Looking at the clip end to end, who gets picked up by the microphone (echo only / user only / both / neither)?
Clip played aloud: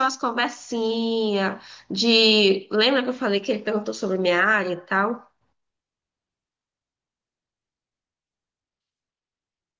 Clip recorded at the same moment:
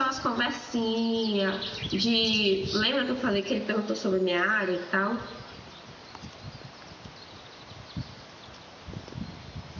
echo only